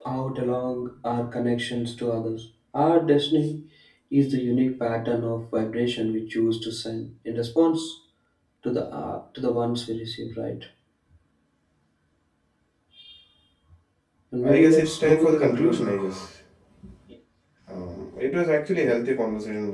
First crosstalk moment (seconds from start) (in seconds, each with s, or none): 14.4 s